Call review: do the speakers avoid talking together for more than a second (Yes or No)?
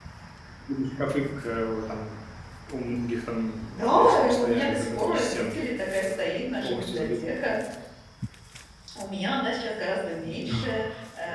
No